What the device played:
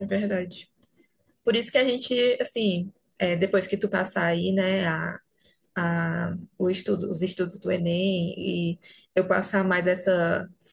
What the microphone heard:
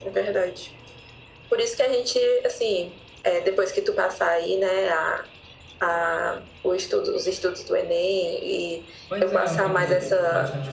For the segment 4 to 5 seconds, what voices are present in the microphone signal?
echo only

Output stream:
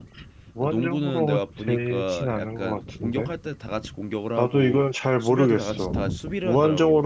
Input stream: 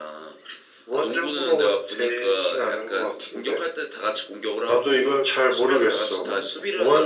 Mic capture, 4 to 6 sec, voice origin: echo only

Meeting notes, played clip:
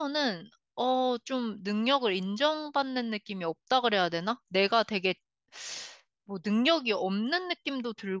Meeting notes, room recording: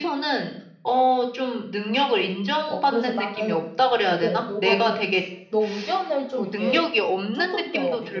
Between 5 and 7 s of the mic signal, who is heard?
both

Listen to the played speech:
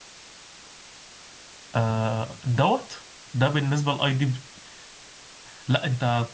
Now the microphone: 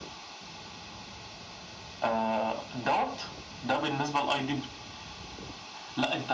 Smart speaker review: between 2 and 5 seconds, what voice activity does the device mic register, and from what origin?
echo only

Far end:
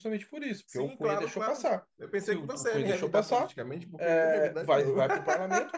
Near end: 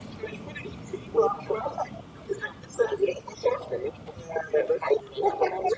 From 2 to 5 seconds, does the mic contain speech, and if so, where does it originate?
echo only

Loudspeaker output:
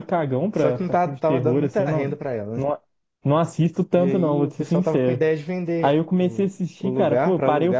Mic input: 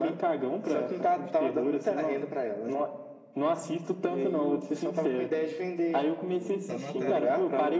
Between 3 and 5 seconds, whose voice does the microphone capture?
echo only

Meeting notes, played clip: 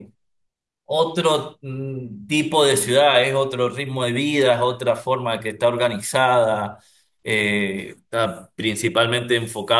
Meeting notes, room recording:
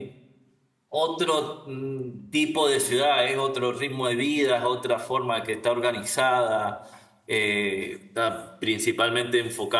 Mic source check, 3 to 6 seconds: echo only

